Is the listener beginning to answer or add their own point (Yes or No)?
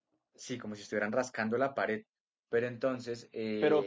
Yes